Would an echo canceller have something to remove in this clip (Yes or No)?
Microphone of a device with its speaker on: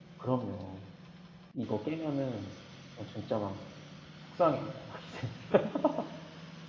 No